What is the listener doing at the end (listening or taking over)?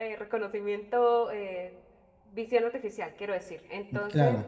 listening